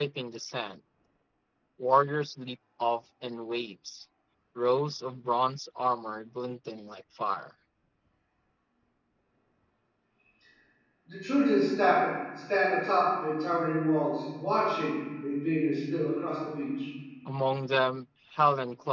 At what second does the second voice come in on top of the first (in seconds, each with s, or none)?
none